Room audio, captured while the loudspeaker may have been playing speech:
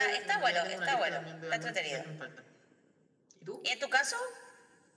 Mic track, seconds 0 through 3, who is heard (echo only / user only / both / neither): echo only